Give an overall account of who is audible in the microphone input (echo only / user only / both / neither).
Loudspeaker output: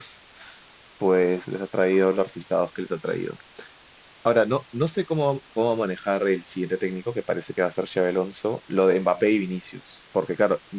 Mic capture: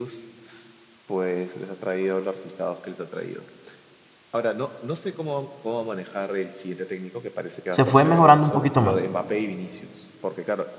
both